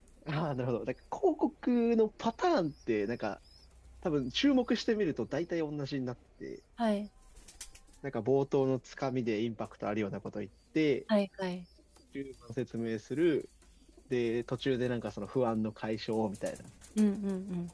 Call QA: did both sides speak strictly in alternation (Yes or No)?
Yes